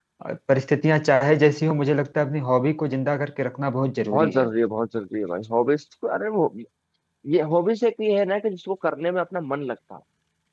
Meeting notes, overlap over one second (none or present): none